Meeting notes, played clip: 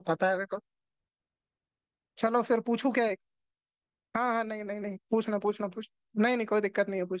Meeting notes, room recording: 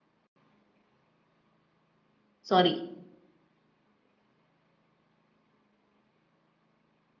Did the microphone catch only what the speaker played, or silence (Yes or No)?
No